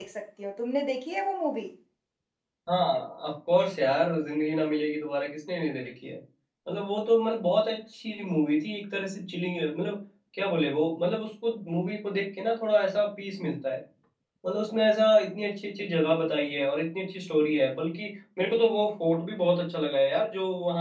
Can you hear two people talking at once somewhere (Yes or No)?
No